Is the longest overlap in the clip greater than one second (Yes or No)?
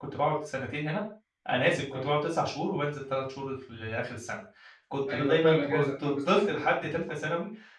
Yes